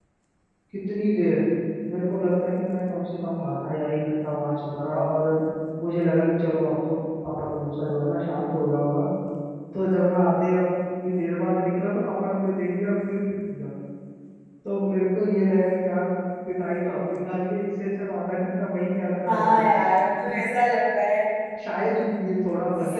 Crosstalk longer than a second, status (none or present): none